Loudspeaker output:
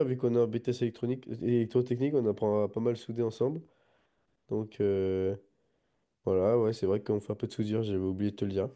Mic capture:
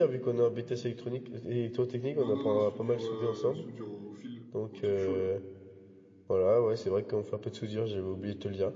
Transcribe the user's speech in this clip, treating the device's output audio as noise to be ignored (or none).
Non, non, non, soudure, euh, soudure au fil, au truc chaud, là.